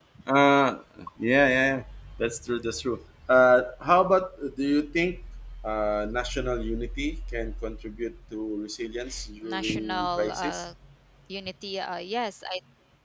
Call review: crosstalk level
present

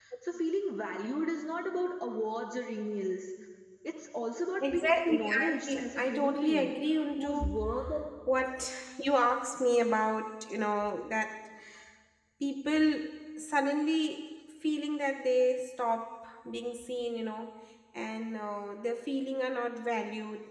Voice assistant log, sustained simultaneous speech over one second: present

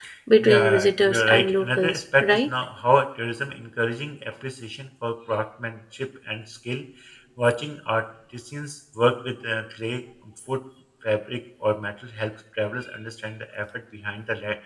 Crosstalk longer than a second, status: present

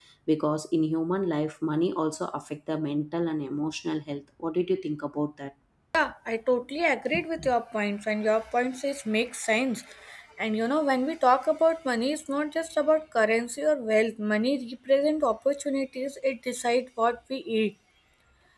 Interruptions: none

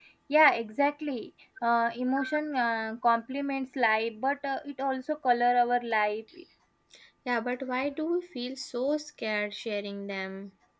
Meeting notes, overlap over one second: none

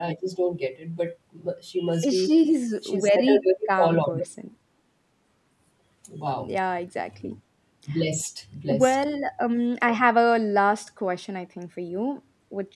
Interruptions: present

